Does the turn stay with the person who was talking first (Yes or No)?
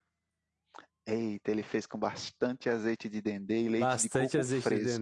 No